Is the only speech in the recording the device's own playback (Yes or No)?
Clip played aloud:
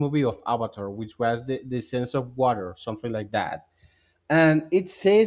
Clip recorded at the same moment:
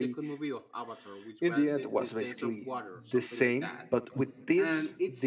No